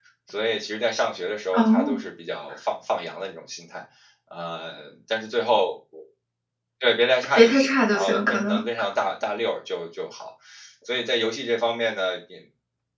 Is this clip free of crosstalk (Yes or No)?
No